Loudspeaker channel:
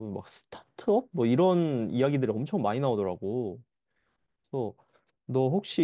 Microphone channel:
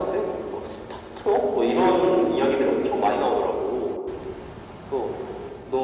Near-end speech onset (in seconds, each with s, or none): none